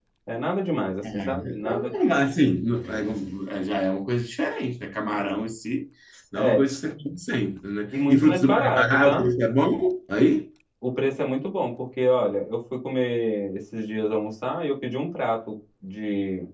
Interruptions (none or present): present